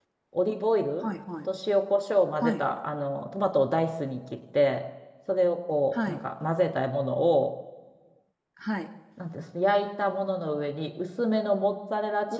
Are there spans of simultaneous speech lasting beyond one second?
No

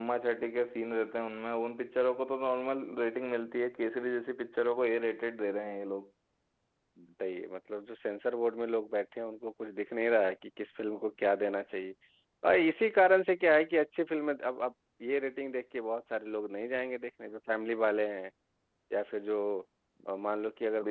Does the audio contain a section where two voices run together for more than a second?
No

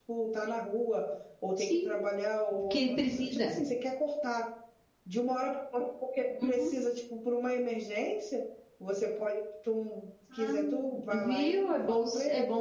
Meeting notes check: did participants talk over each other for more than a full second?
Yes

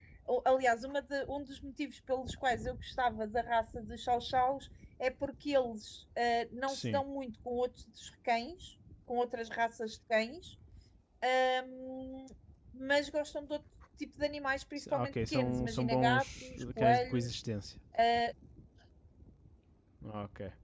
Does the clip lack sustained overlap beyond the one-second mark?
No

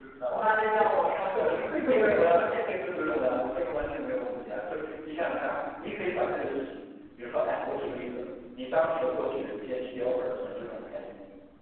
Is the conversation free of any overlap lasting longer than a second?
No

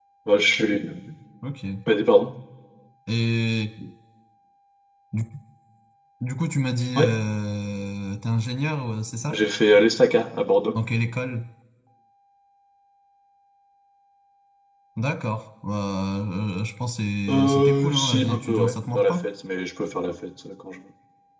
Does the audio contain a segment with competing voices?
Yes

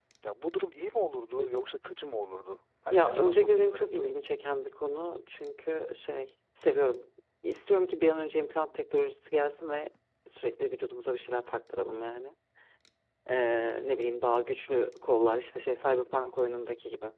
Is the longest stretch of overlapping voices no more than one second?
No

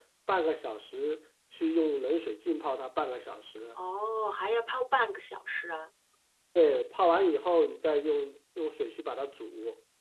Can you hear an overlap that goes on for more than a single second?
No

